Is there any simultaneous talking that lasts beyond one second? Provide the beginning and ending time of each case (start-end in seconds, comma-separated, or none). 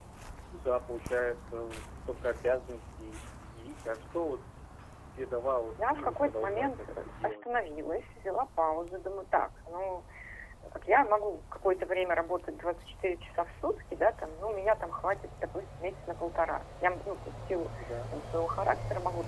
5.8-7.4